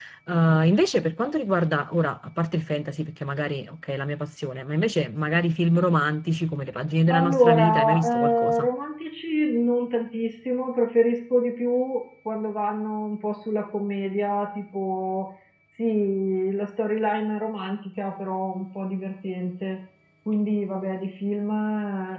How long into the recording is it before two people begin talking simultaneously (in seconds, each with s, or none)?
7.1 s